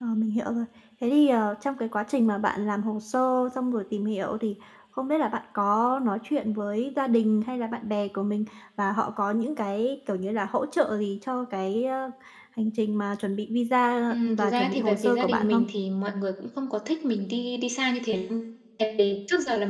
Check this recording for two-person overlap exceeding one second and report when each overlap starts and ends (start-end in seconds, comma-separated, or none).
14.1-15.6